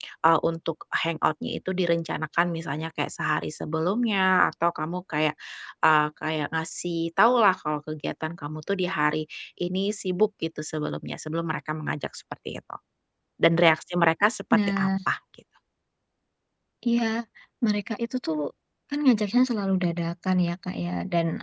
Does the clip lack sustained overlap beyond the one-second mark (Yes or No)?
Yes